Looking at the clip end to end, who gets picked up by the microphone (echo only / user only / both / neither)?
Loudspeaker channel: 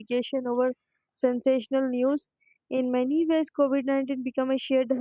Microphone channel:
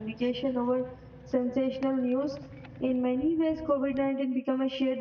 echo only